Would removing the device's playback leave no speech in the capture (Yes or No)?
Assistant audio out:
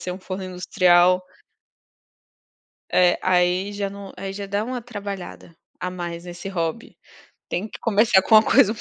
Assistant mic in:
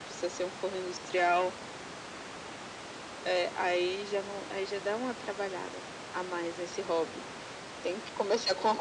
Yes